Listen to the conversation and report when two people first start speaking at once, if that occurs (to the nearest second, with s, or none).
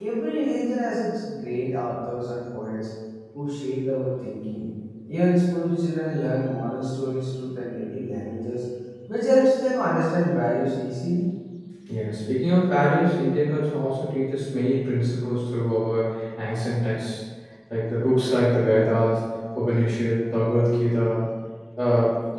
none